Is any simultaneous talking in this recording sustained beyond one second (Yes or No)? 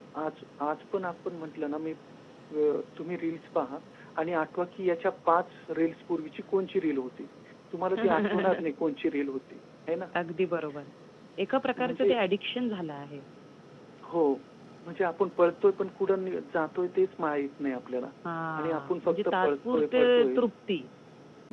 Yes